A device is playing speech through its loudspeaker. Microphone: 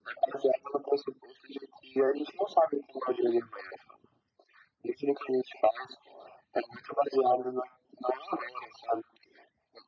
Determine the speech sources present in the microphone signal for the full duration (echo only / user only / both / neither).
echo only